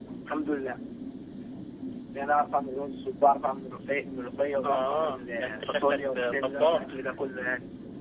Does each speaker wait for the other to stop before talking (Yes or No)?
No